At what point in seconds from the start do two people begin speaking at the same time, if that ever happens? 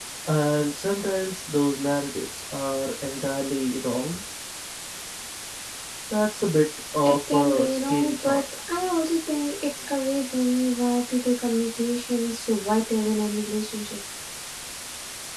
7.0 s

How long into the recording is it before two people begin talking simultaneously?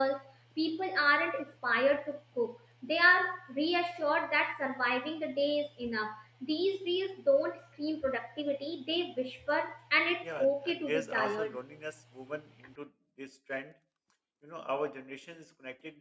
10.2 s

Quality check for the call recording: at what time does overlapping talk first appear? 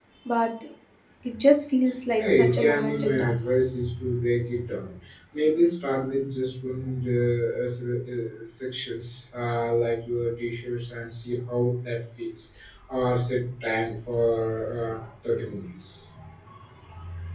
2.2 s

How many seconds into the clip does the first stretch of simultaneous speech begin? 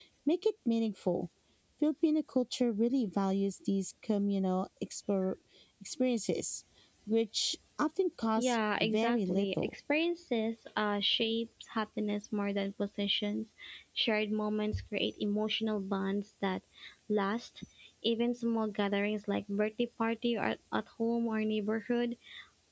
8.4 s

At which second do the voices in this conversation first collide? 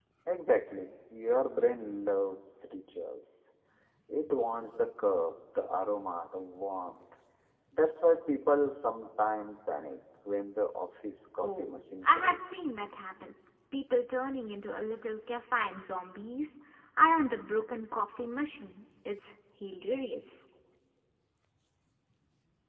11.4 s

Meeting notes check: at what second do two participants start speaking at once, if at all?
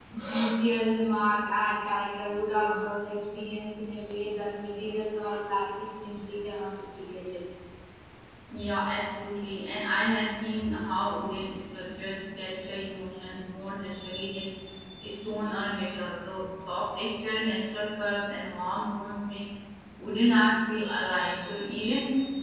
none

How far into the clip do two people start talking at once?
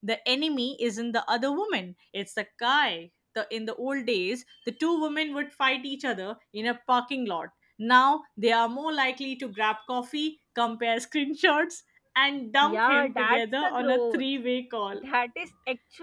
12.6 s

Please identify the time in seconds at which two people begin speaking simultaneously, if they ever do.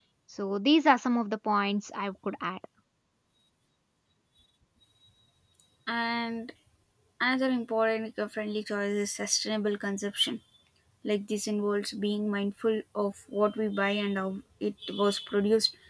none

